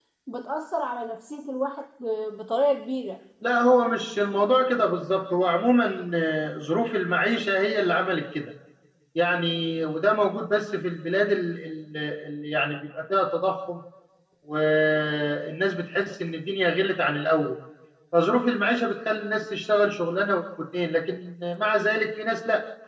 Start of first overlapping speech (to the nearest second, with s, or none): none